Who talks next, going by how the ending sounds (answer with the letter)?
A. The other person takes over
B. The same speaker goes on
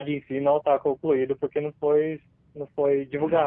A